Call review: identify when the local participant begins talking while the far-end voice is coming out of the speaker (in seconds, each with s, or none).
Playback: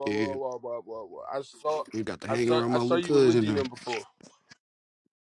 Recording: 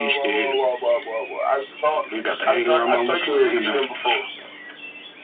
none